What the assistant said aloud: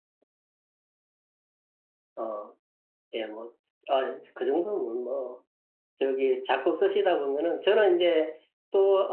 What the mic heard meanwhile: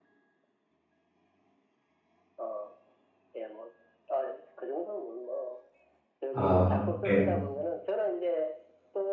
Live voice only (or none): 아, 네.